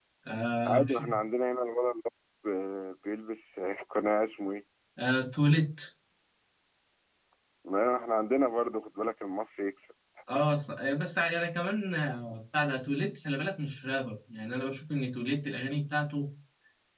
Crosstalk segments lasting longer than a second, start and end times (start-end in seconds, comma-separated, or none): none